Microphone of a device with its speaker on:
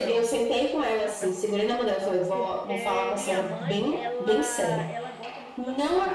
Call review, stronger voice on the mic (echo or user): echo